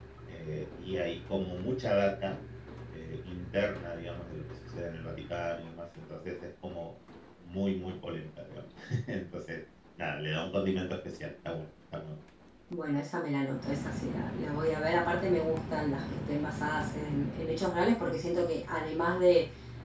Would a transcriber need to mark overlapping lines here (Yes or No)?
No